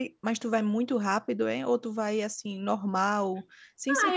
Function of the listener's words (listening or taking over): taking over